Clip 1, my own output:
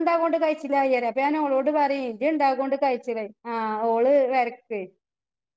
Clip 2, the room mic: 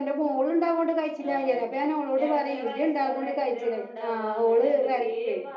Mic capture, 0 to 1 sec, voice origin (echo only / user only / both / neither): echo only